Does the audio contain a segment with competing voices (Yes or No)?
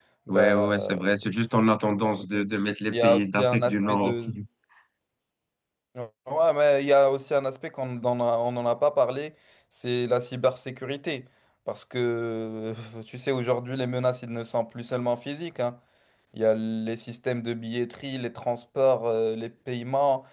Yes